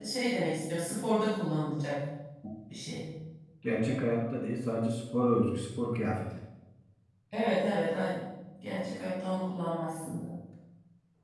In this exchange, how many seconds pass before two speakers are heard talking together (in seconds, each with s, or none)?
none